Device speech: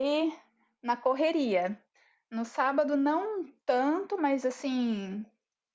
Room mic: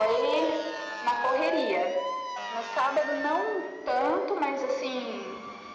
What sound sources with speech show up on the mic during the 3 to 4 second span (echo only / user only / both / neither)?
echo only